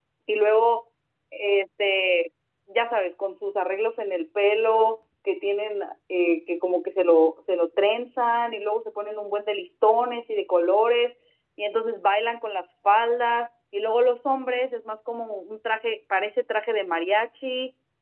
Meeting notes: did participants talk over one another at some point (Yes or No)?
No